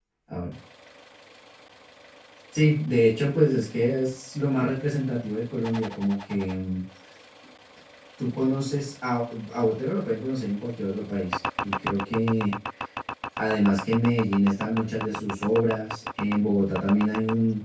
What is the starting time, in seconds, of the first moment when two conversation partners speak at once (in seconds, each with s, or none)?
none